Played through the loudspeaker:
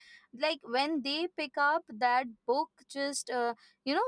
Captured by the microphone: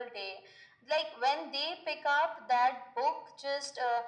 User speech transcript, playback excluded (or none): none